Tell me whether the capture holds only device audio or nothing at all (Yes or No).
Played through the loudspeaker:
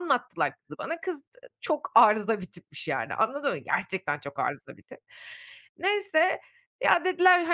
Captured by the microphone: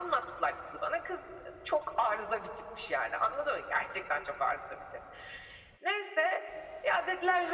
Yes